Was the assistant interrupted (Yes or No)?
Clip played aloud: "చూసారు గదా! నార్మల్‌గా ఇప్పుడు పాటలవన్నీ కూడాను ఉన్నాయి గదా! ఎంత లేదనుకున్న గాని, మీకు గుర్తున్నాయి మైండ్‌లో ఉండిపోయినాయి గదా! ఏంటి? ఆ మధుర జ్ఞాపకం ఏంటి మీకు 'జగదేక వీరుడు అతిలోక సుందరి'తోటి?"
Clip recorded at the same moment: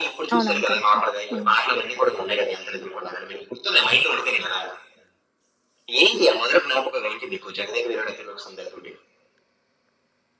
Yes